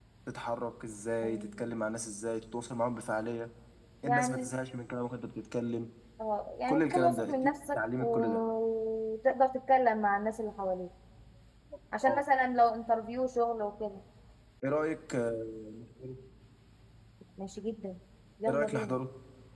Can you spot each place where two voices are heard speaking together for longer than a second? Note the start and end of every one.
6.7-8.4

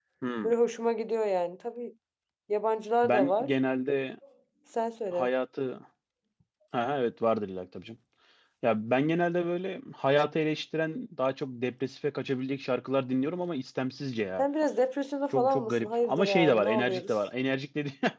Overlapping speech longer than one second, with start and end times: 15.3-17.1

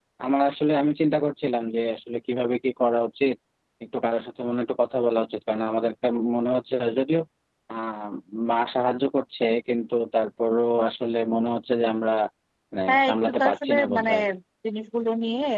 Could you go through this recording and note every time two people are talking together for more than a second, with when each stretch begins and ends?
12.9-14.1

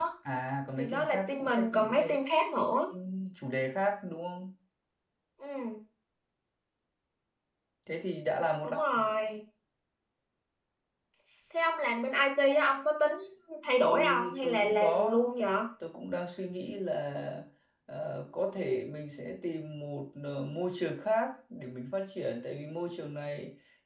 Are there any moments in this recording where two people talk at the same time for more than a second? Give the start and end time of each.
0.8-2.2, 13.8-15.2

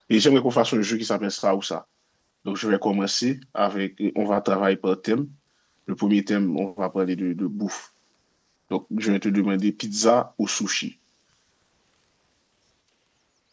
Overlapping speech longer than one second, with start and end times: none

